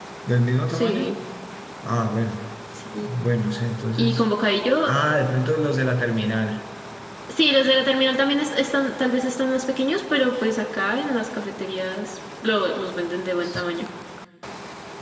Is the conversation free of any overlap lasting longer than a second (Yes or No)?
Yes